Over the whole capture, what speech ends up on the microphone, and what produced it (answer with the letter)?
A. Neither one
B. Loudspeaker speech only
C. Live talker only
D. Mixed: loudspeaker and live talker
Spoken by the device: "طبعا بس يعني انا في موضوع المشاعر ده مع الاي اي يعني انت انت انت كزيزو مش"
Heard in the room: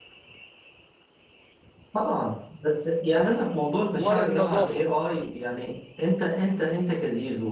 D